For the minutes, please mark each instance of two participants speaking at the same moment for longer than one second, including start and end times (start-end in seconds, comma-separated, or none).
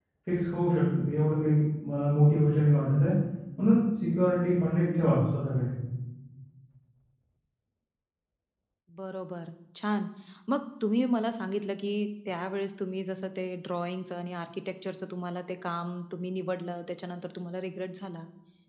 none